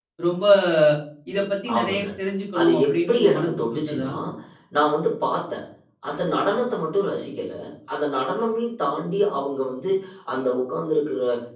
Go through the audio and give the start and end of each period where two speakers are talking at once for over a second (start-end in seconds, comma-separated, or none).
2.6-4.1